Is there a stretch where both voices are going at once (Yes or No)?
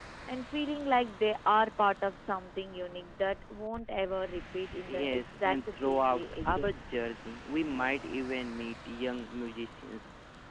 Yes